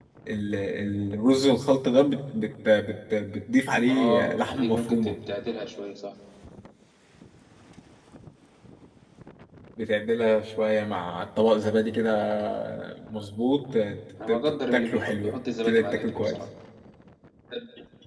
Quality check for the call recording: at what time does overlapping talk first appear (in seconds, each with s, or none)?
3.9 s